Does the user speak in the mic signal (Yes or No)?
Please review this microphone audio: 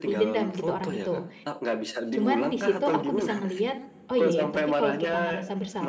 Yes